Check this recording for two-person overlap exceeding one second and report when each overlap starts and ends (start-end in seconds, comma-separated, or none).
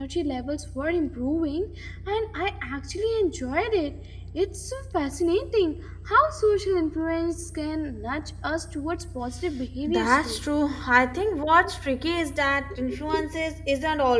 none